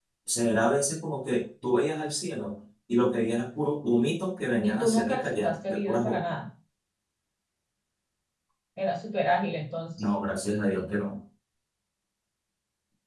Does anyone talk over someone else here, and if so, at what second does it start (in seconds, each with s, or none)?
4.6 s